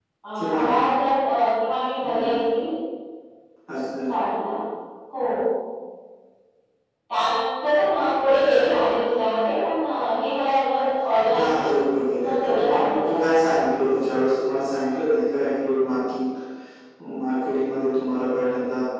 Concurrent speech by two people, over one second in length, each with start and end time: 11.3-13.2

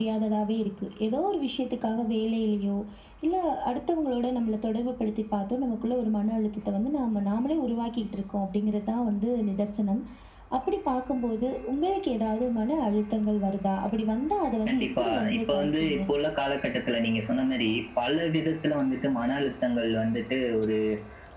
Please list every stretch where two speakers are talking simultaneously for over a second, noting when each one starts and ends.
14.7-16.0

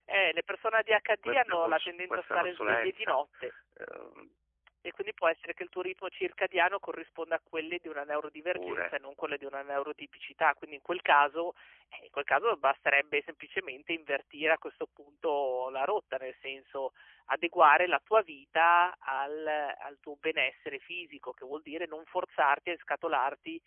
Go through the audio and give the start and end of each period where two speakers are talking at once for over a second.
1.2-3.2

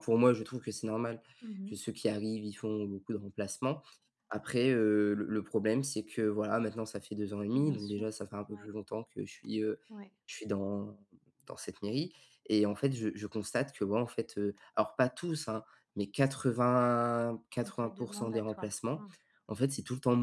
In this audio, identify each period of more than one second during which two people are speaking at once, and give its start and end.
17.6-19.0

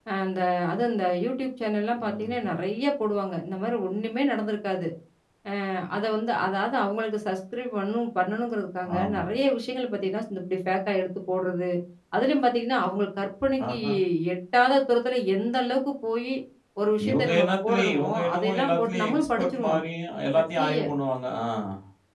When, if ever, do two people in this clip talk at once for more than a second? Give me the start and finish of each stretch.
17.1-19.8

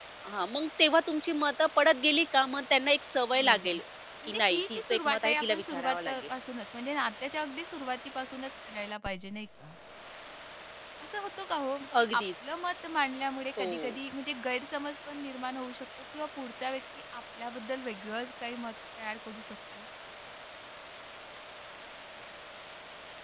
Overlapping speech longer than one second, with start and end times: 4.2-6.3

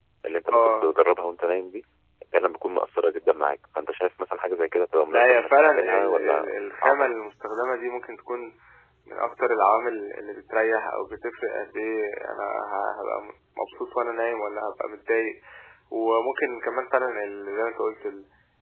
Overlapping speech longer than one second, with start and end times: 5.1-7.0

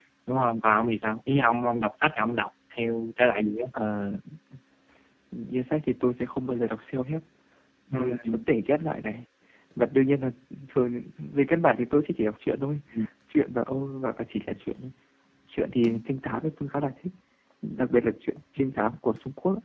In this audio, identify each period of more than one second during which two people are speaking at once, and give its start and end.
none

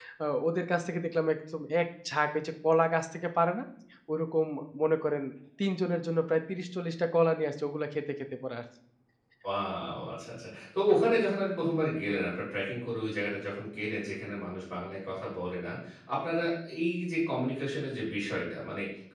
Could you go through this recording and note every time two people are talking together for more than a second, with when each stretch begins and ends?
none

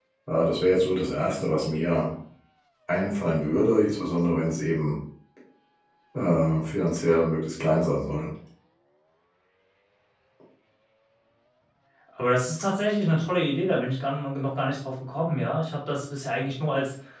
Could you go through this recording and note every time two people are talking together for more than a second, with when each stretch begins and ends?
none

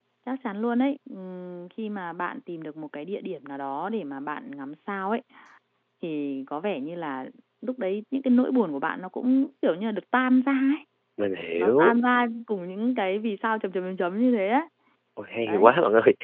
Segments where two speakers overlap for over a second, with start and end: none

